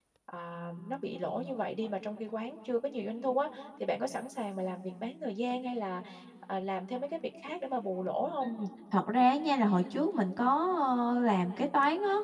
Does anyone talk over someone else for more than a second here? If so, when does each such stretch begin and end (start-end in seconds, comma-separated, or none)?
none